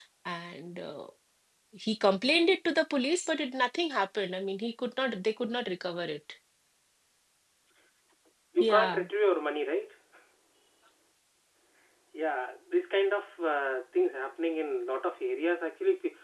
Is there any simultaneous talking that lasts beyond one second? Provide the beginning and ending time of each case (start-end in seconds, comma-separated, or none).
none